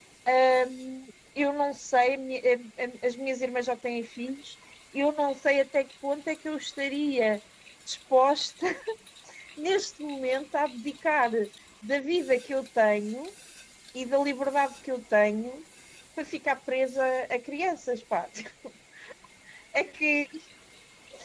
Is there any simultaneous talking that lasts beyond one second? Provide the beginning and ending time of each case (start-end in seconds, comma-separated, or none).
none